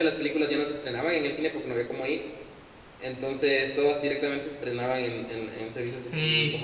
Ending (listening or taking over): taking over